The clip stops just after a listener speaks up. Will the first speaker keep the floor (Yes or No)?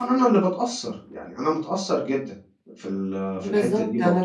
No